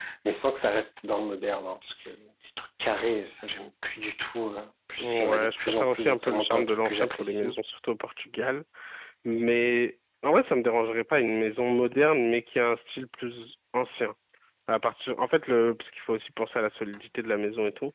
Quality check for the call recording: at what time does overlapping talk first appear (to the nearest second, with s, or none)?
5 s